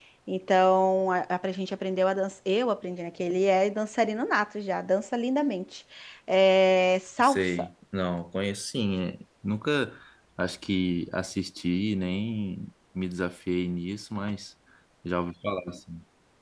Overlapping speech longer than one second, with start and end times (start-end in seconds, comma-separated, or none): none